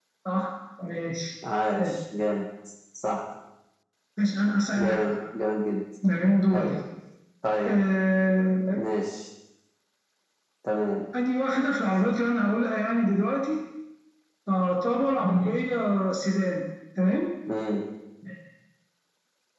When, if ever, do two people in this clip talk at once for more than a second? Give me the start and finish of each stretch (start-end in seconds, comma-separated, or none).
none